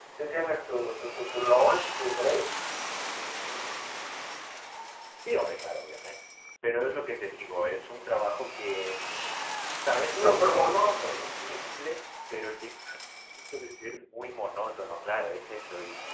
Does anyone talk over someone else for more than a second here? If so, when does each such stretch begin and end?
10.1-11.5

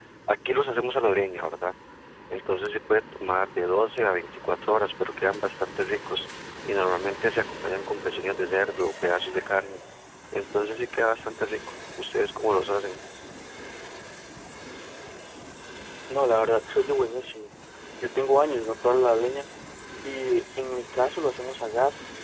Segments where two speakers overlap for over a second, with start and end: none

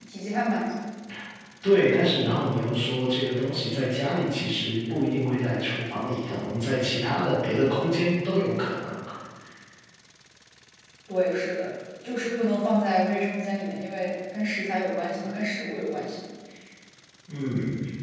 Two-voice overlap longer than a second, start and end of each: none

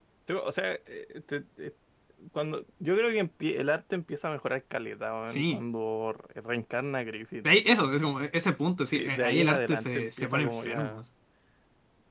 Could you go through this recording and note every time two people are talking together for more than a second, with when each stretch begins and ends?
8.8-11.0

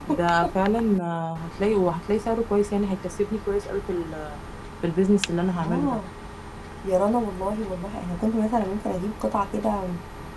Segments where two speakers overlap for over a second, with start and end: none

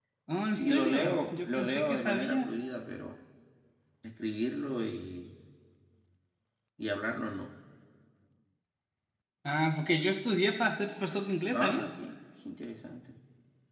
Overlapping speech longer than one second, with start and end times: 0.5-2.5

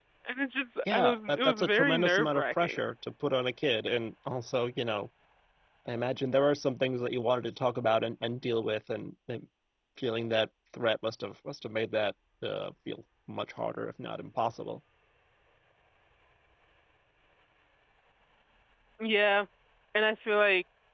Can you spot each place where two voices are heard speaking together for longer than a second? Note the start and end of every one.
0.9-2.8

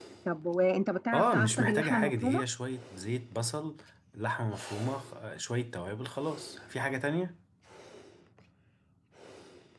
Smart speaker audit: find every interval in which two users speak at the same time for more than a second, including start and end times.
1.1-2.4

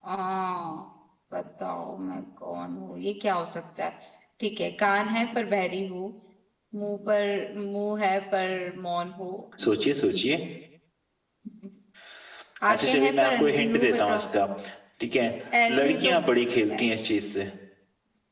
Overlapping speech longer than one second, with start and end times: 12.7-14.2

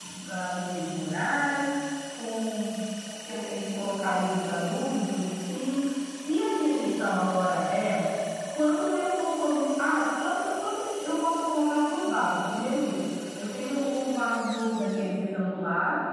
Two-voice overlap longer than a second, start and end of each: none

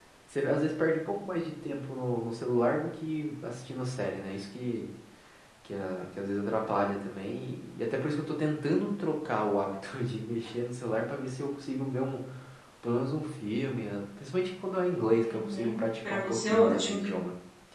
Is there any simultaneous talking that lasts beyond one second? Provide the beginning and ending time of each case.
15.2-17.0

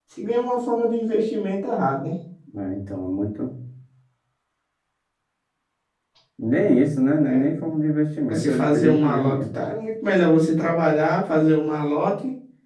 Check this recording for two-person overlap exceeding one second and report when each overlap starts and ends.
8.3-9.6

